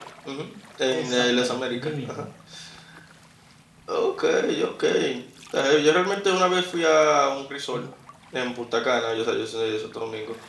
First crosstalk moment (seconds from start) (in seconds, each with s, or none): 0.9 s